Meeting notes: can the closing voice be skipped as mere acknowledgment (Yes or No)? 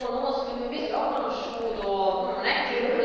Yes